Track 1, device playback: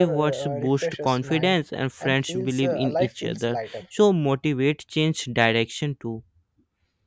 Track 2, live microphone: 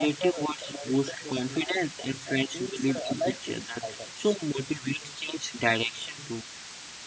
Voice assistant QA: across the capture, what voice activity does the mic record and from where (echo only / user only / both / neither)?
echo only